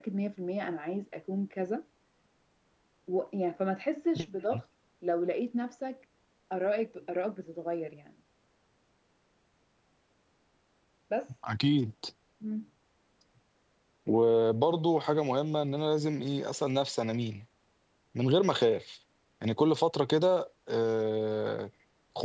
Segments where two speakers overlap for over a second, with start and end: none

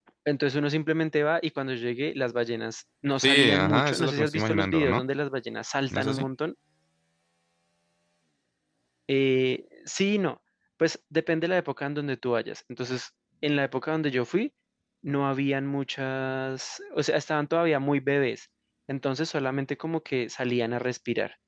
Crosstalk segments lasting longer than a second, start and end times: 3.2-5.0

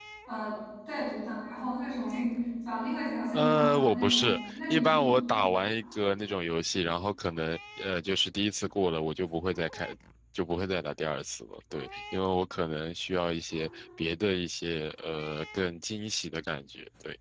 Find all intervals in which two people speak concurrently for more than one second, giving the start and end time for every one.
3.3-5.2

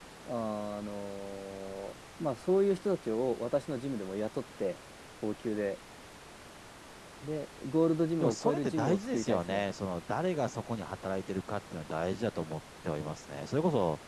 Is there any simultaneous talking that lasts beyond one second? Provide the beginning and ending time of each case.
8.2-9.6

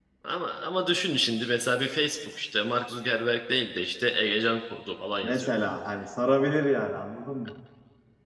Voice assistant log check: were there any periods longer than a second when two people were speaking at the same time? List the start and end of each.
none

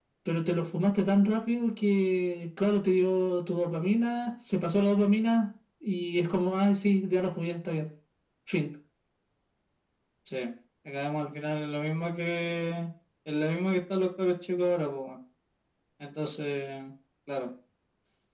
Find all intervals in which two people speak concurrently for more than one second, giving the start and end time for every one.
none

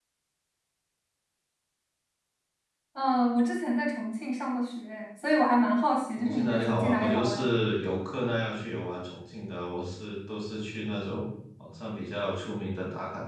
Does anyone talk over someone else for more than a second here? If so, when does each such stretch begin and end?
6.2-7.5

